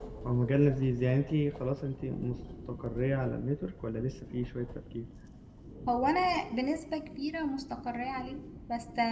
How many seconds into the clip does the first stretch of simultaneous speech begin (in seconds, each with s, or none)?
none